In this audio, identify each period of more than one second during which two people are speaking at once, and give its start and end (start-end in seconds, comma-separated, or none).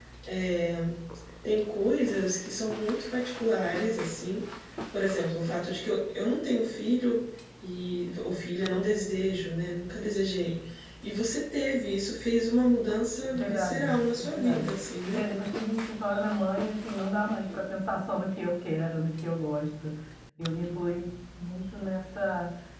13.3-14.7